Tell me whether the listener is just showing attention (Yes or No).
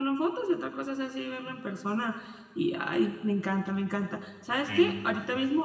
Yes